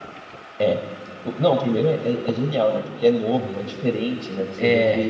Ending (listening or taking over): listening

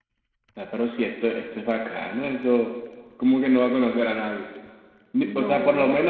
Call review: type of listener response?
listening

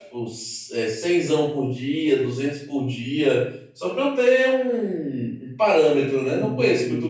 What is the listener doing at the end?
taking over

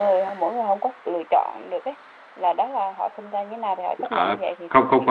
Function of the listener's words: taking over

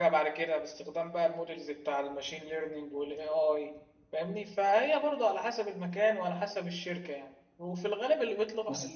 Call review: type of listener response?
listening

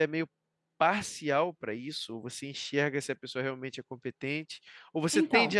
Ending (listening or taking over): listening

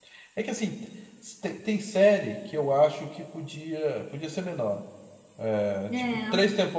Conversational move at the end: listening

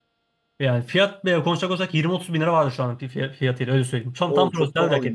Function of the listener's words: taking over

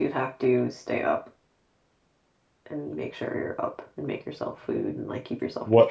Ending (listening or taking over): taking over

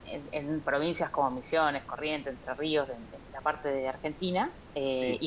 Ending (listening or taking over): listening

